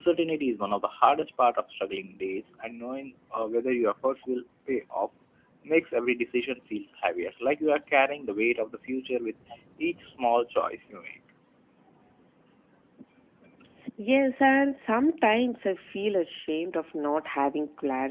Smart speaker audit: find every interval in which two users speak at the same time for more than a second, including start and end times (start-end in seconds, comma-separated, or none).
none